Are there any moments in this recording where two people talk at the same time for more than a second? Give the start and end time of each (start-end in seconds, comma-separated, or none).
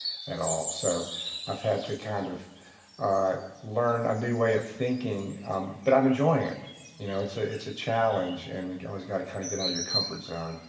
none